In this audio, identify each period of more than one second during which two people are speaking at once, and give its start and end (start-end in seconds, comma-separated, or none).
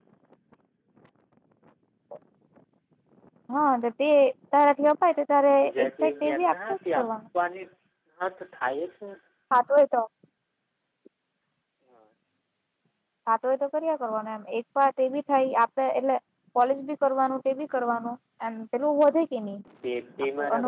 5.6-7.1